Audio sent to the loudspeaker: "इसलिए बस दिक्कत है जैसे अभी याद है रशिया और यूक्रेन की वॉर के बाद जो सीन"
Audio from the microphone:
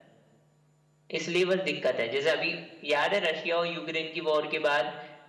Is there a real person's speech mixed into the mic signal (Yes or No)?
No